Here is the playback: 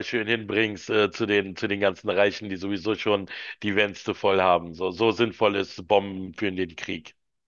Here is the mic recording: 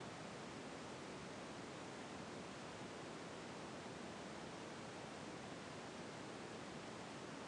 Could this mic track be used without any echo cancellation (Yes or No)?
Yes